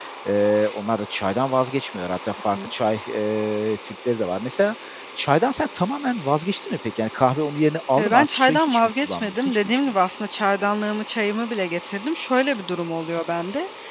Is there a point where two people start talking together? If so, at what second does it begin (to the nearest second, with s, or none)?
8 s